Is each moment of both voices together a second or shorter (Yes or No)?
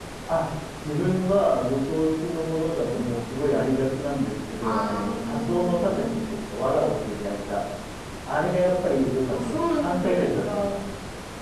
No